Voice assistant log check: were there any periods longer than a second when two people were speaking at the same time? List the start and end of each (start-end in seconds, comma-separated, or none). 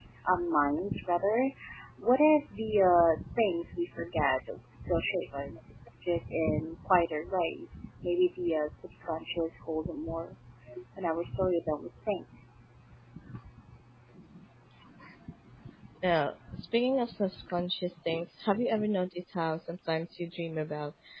none